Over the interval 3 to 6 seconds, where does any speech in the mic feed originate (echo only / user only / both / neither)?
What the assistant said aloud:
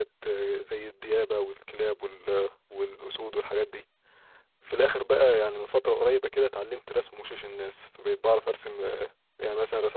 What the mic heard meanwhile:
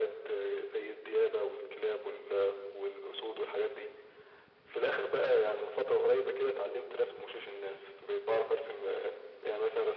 echo only